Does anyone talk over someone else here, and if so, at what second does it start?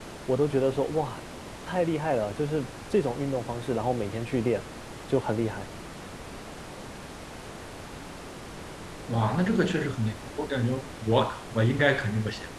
none

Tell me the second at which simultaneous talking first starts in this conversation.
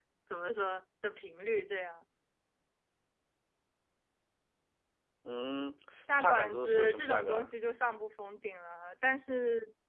6.1 s

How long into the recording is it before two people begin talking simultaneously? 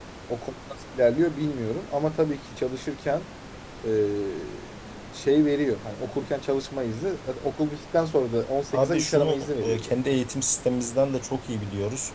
8.7 s

